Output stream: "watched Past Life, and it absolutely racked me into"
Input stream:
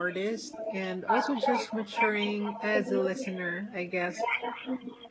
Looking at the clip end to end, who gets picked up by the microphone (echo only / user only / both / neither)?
both